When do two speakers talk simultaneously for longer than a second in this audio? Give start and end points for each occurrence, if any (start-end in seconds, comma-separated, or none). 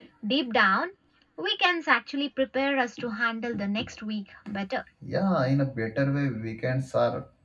none